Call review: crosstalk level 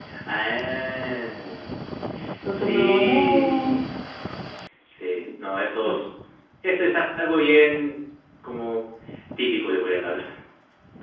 present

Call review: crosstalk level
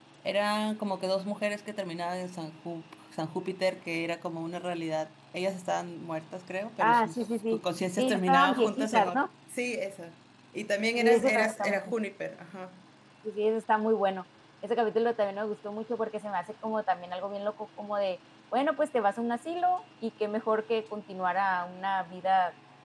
present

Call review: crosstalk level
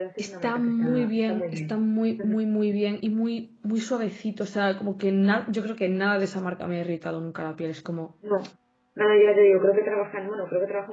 present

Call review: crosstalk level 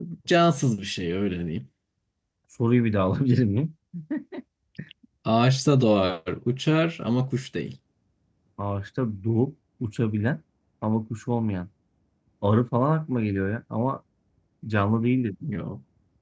none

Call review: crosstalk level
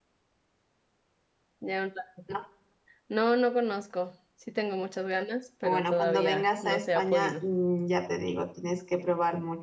present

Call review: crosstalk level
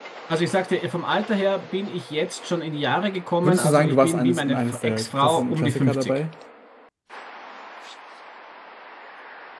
present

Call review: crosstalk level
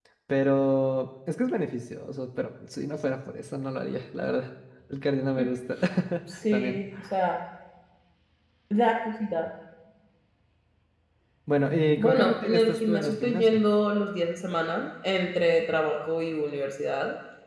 present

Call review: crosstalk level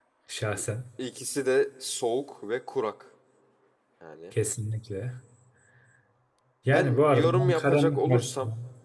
present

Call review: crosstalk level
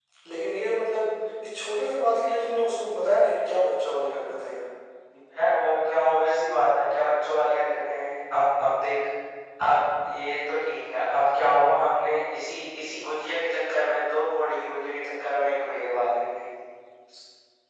none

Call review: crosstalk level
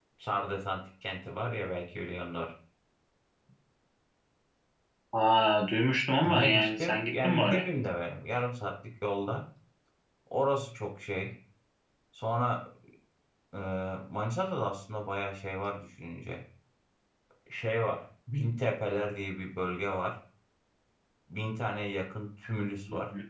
present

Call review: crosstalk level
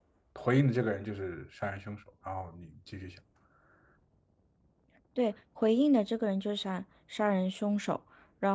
none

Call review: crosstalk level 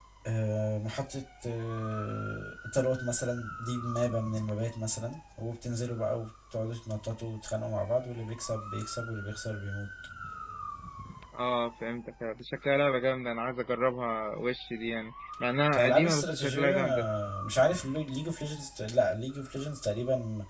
present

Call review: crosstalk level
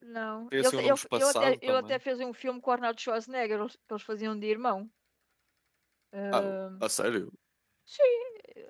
present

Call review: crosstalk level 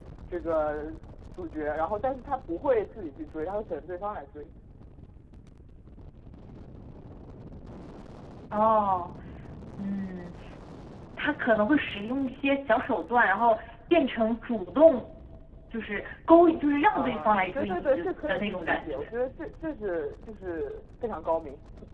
present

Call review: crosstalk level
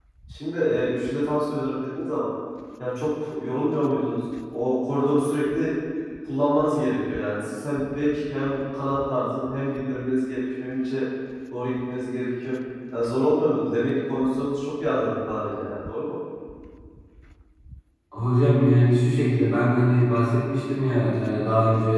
none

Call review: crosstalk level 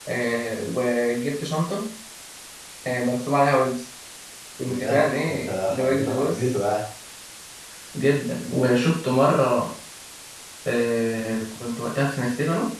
present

